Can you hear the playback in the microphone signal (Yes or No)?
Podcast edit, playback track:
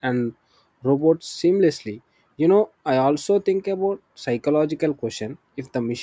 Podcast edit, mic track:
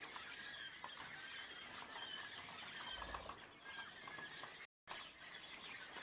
No